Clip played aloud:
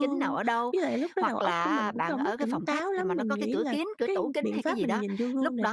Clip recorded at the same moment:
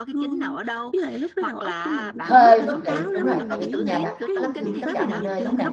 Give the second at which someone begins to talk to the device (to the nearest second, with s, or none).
2 s